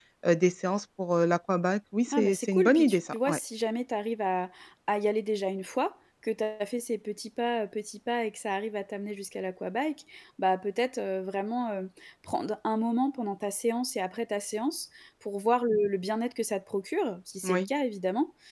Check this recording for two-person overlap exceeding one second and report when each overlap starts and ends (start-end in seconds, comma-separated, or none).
2.1-3.4